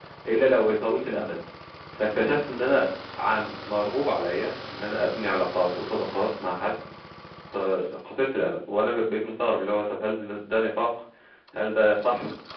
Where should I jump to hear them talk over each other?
none

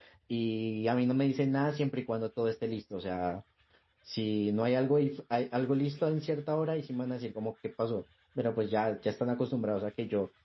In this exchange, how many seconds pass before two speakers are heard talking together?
none

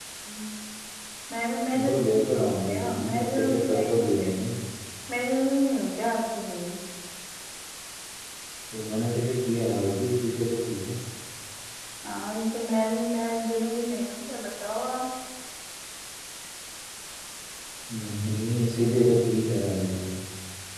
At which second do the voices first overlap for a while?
1.8 s

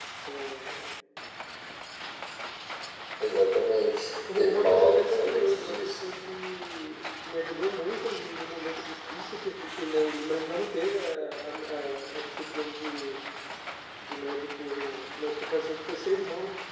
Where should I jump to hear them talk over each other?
4.3 s

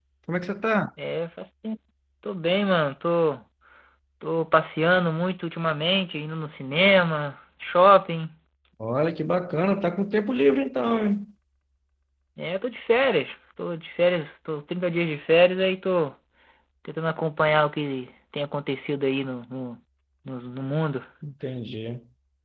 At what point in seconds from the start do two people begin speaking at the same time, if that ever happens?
none

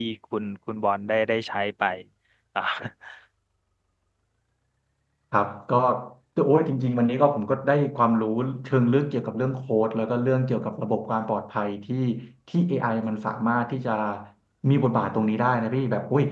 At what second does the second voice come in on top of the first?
none

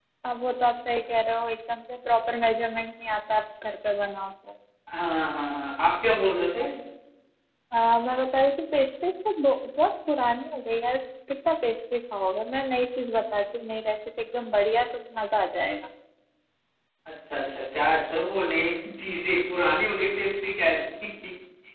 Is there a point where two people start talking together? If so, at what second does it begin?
none

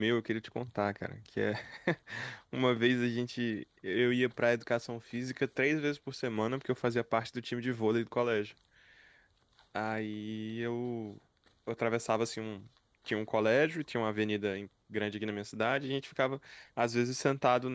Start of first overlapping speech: none

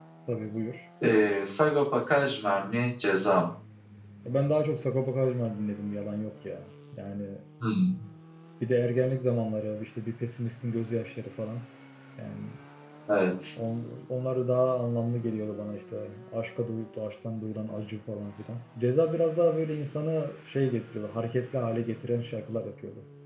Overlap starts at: none

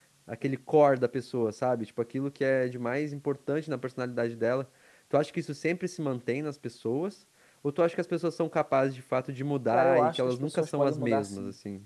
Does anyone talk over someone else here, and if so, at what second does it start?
9.7 s

